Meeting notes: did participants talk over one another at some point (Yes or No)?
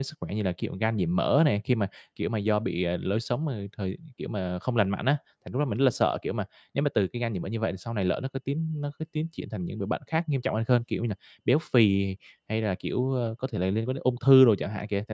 No